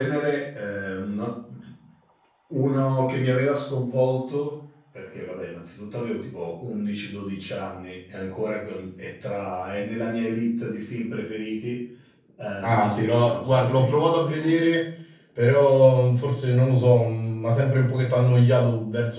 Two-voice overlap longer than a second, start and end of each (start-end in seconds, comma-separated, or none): 12.6-14.5